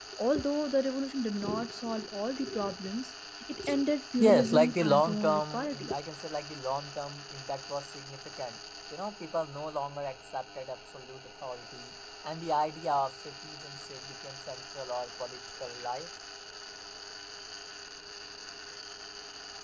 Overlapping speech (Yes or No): Yes